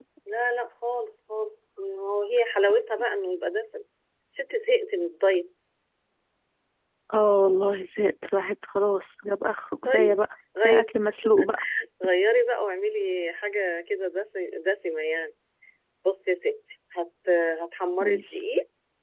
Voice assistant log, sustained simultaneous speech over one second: none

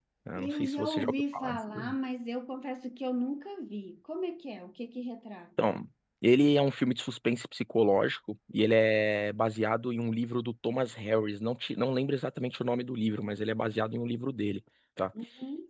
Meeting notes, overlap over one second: present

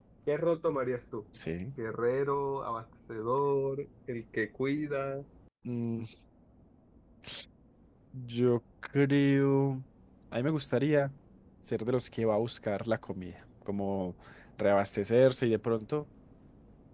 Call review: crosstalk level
none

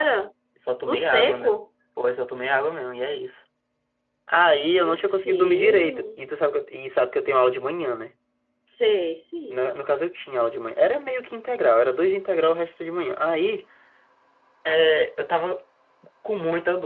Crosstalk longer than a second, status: present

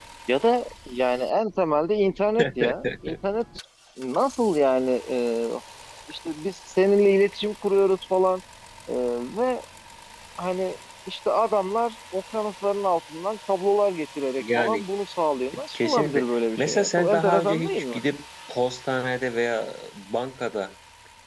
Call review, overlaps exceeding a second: present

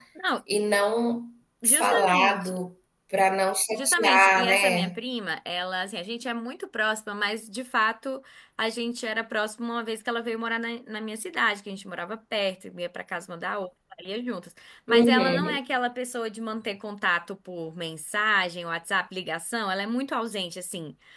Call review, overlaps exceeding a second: present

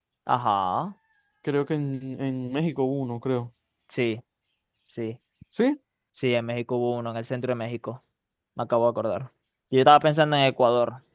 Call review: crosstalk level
none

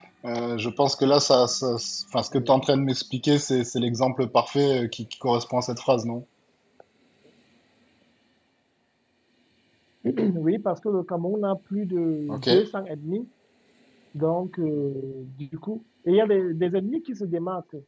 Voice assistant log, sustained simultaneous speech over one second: none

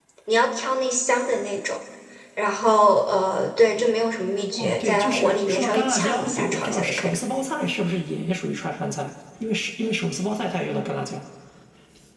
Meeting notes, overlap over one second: present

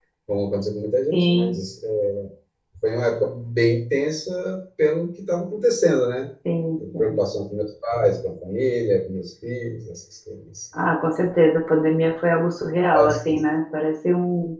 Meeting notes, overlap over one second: none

